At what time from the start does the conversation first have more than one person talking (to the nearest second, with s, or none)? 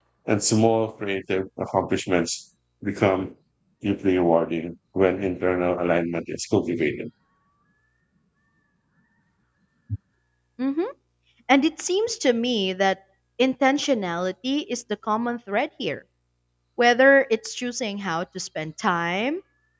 none